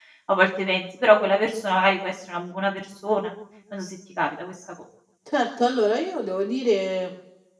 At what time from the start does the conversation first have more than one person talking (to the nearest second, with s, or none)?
none